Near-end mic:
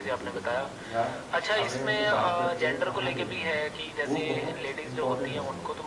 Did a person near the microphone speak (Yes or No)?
Yes